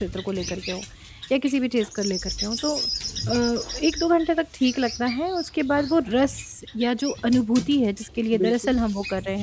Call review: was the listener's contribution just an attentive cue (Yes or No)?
Yes